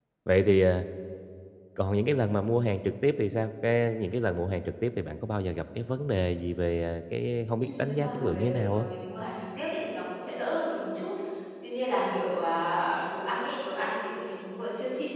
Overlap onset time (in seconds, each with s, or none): 7.6 s